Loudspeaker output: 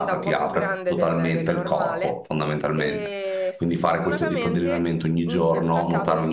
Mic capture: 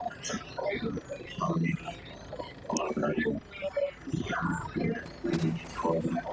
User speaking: No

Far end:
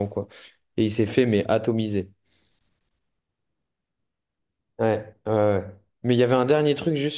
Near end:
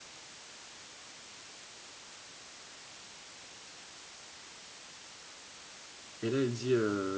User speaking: Yes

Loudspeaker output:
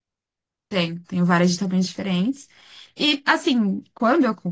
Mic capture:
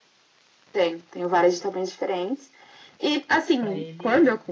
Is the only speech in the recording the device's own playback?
No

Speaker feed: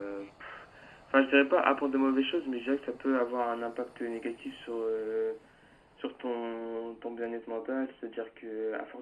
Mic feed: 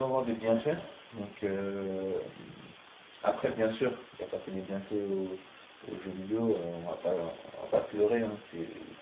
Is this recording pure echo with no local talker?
No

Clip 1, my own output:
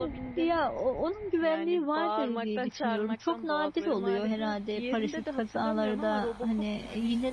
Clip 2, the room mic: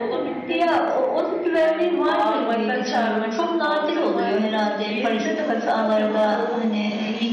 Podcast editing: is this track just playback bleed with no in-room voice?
Yes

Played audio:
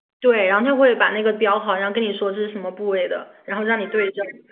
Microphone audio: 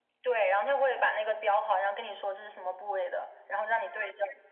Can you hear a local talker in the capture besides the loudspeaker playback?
No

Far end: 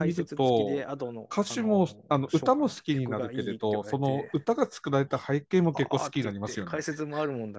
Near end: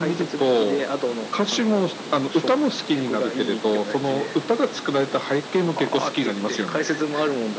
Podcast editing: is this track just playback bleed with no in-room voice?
Yes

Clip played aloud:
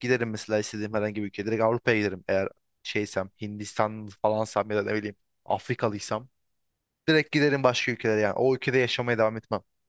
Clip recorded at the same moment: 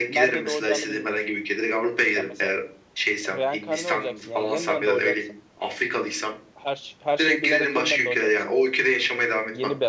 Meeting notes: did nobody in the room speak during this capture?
No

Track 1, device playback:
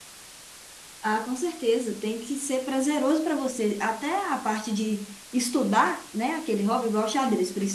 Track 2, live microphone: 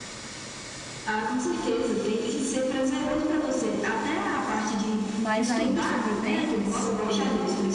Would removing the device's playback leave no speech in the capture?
No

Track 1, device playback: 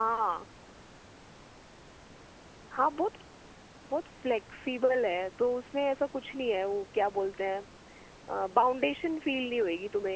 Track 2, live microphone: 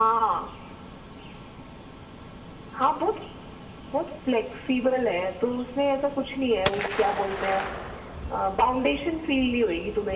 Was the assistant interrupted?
No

